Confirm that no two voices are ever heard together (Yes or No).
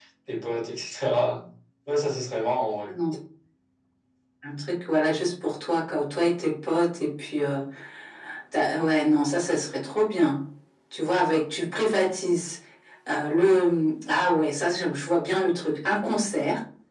Yes